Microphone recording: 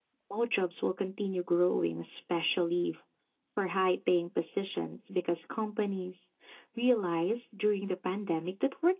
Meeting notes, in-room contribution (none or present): none